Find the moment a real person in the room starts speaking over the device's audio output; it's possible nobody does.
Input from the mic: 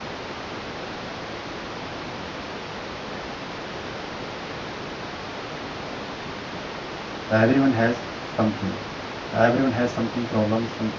7.4 s

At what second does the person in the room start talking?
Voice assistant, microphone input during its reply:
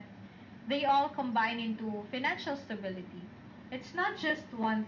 none

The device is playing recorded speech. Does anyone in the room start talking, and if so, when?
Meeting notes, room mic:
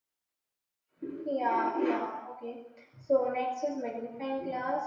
1.0 s

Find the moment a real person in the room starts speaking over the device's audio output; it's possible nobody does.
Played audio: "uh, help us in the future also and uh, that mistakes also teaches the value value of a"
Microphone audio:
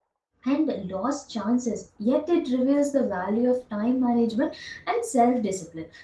0.5 s

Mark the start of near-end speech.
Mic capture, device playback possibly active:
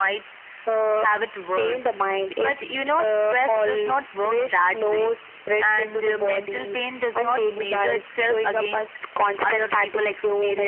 none

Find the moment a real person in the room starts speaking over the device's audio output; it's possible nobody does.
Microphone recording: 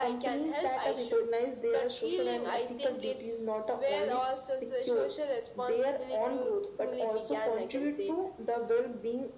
none

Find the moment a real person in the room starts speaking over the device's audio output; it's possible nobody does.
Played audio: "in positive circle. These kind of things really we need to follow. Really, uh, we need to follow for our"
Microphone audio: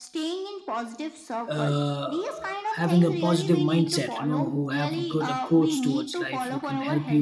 1.5 s

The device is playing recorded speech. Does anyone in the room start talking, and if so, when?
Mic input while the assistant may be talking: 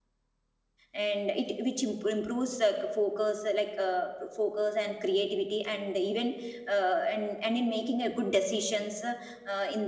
0.9 s

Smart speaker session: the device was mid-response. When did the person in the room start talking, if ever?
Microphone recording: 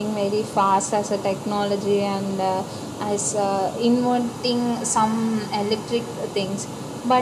none

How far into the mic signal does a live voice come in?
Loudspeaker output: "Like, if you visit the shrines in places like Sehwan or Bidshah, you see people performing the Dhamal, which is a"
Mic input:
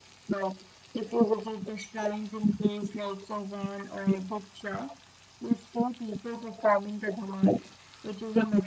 none

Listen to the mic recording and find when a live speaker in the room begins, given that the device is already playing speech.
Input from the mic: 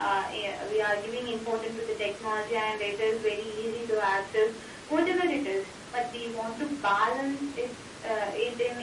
none

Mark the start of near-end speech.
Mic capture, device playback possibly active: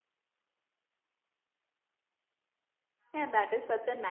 3.1 s

